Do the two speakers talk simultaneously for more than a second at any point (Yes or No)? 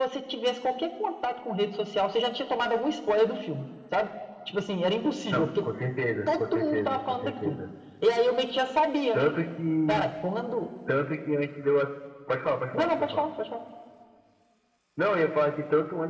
Yes